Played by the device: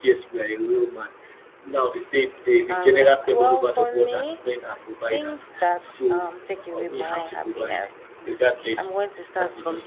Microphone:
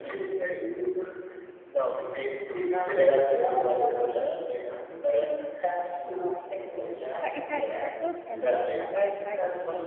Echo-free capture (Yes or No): No